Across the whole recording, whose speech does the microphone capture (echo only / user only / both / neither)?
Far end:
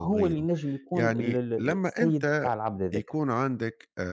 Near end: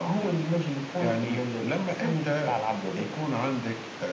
echo only